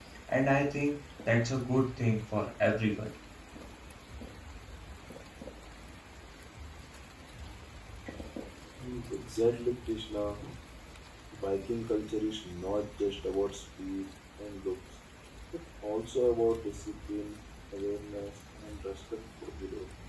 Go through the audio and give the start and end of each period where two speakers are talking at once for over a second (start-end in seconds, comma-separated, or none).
none